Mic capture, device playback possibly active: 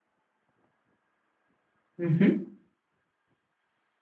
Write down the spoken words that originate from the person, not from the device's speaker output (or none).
mmh